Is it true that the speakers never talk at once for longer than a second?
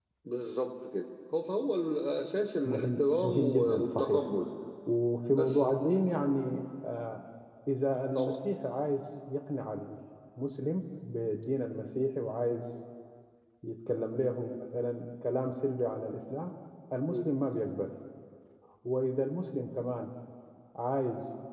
No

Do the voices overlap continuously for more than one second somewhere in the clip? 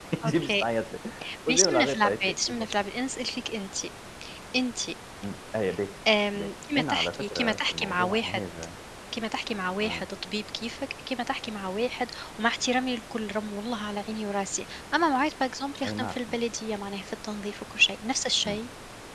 Yes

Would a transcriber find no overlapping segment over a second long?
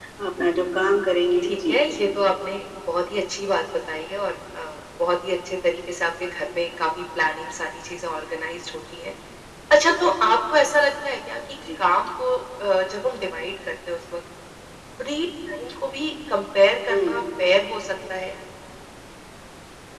Yes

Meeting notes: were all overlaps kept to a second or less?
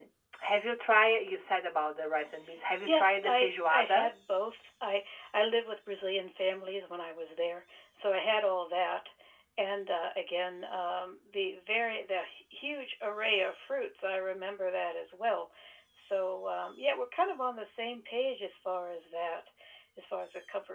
No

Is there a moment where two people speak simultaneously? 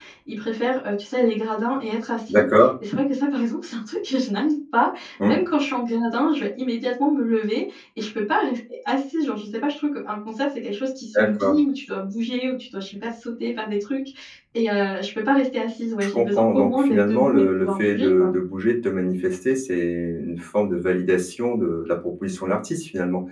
Yes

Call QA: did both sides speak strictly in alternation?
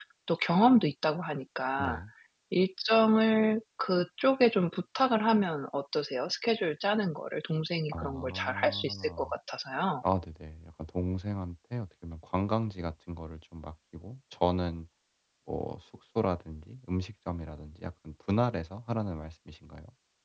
No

